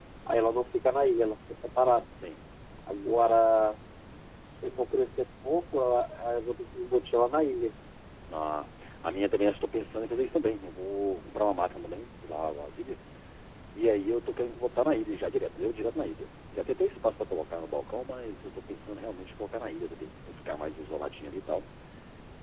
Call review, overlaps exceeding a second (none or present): none